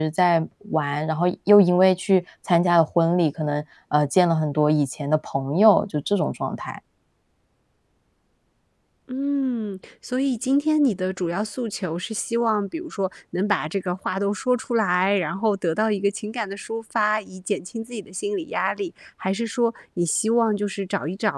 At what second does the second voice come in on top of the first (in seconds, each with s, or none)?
none